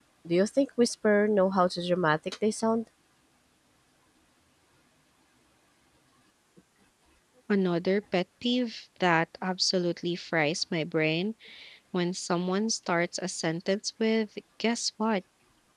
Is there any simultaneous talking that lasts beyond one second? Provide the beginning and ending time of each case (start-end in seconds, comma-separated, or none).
none